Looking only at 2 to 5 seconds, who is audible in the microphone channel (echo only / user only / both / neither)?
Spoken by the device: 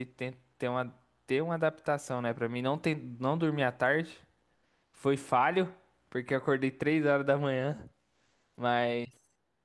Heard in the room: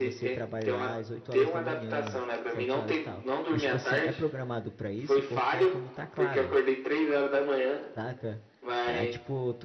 both